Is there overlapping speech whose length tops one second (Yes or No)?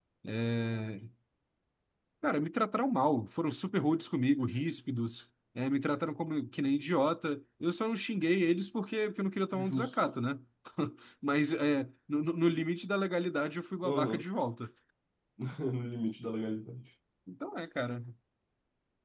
No